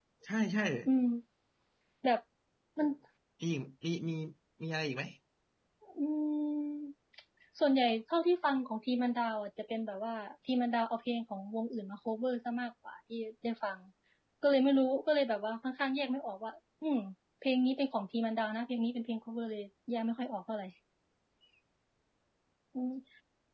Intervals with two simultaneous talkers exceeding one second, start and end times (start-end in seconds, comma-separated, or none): none